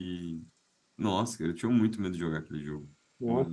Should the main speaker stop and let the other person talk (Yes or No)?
Yes